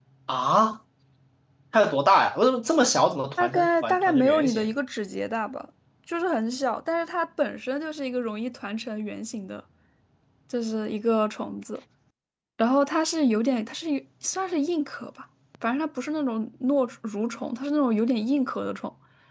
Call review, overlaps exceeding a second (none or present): present